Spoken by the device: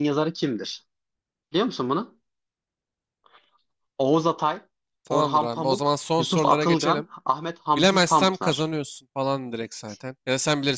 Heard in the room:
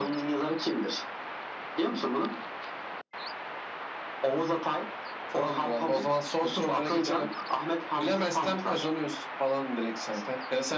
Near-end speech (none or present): none